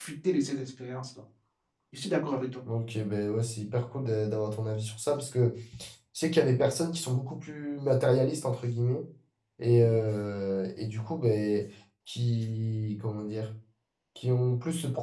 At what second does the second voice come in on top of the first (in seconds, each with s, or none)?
none